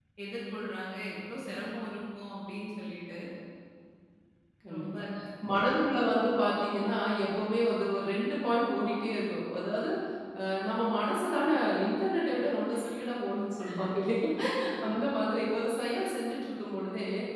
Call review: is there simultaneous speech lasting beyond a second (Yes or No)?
No